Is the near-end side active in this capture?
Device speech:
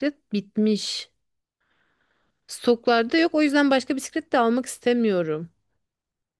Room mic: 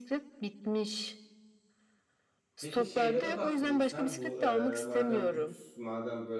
Yes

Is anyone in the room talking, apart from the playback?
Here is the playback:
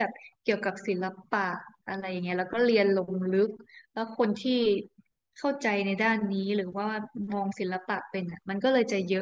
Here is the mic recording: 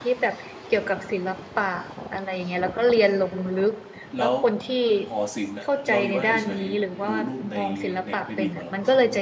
Yes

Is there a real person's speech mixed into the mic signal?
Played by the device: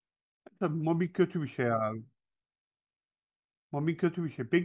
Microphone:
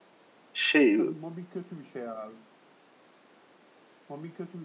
Yes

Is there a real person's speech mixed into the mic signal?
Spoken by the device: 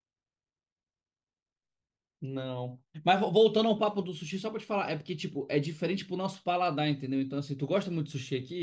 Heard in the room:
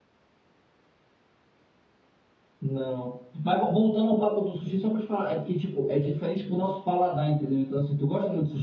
No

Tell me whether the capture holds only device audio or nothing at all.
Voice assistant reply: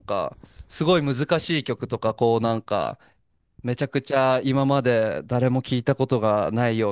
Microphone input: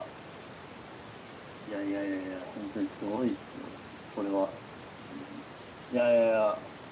No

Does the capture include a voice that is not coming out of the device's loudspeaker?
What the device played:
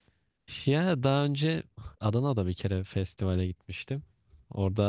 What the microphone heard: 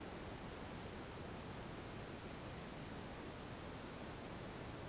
No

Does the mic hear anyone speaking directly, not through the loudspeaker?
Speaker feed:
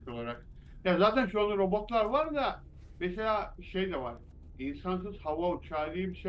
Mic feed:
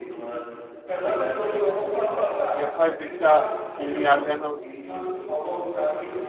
Yes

